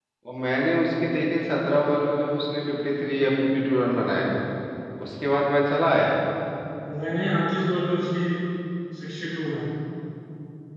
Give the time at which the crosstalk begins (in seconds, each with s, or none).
none